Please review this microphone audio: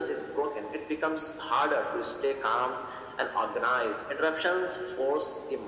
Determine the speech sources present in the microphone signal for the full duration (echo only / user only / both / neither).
echo only